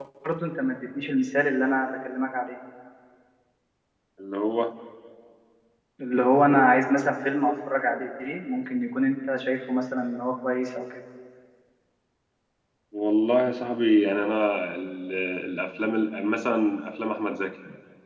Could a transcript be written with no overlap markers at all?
Yes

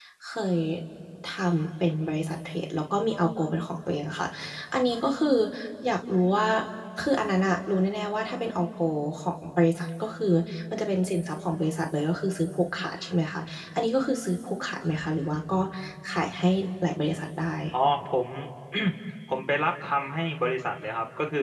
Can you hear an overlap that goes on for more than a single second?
No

